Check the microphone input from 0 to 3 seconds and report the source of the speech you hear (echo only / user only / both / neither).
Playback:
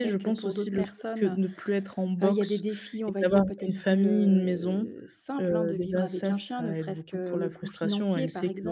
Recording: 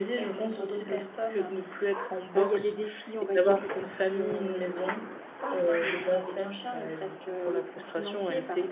echo only